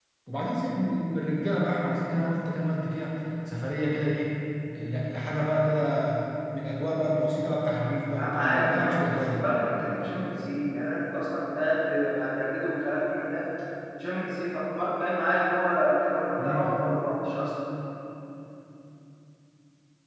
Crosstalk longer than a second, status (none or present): present